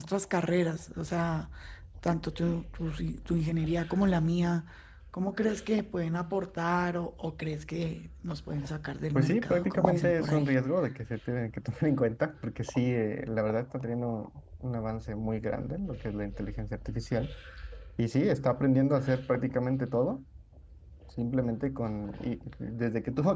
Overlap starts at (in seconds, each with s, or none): 9.1 s